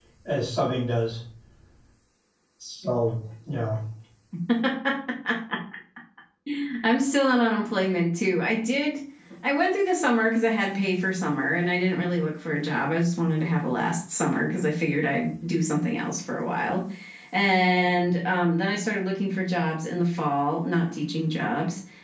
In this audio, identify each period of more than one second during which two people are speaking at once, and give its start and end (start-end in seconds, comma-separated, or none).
none